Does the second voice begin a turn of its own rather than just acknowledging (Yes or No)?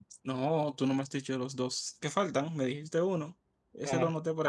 Yes